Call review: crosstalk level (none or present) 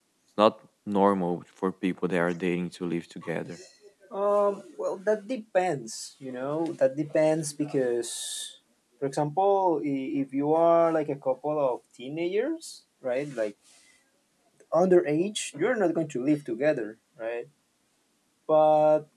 none